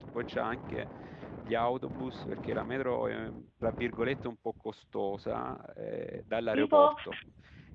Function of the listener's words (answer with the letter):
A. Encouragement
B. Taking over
A